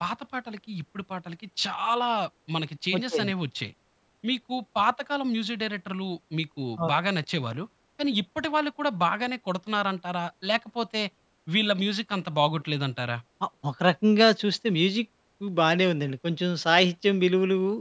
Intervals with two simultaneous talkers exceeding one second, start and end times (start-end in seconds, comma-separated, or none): none